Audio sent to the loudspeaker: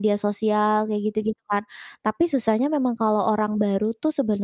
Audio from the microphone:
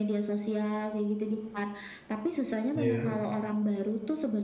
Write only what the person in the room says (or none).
Iya.